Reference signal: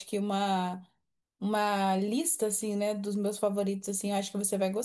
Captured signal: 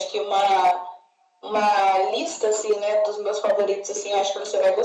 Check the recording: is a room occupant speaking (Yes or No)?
No